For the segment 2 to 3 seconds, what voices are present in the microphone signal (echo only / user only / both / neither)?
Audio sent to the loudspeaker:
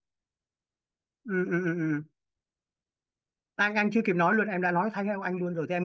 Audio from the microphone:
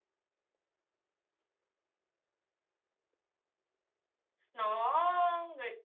neither